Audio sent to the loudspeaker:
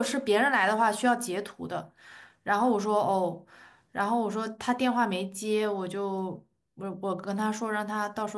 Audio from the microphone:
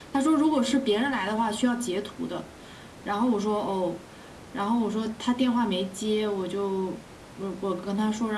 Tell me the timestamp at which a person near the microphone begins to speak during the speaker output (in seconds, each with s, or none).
none